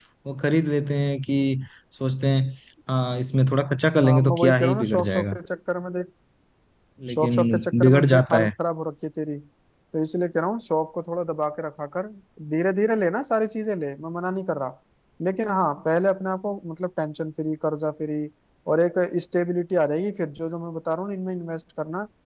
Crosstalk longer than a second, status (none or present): present